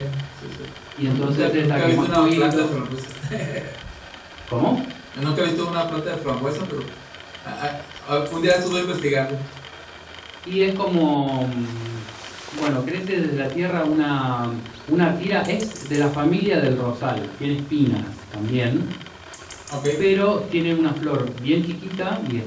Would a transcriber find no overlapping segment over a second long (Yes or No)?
No